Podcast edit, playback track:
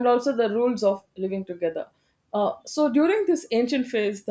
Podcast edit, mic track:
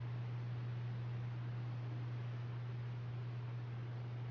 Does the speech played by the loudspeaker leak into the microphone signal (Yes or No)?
No